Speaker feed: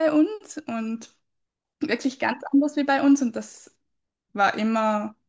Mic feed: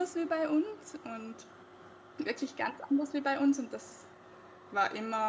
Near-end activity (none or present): none